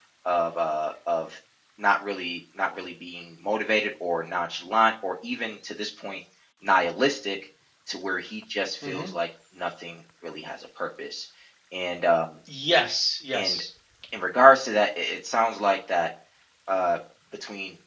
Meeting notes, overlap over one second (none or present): none